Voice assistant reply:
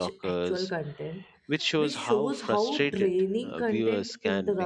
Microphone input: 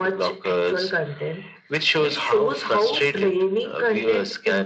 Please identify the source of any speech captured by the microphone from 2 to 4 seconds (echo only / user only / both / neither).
echo only